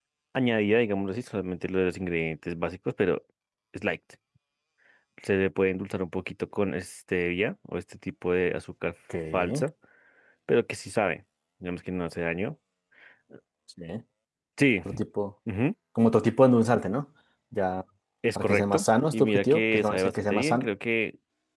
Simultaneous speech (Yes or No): Yes